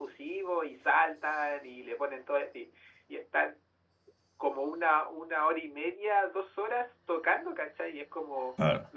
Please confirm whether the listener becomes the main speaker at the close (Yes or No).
No